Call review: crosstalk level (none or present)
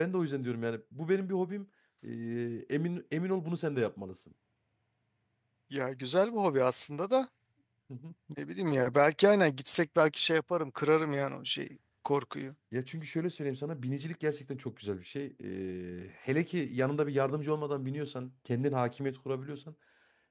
none